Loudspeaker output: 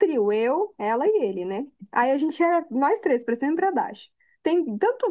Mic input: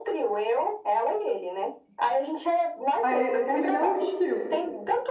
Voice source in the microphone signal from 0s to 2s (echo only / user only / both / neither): echo only